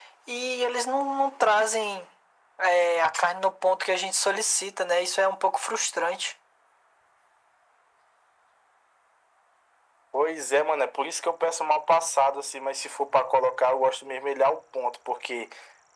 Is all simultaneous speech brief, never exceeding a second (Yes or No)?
Yes